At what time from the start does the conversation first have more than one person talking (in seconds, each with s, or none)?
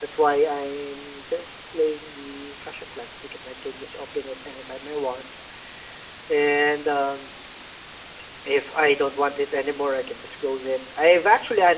none